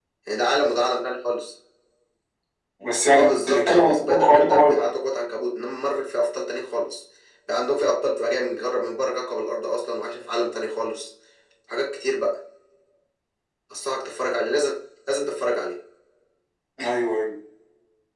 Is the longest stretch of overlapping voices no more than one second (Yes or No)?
No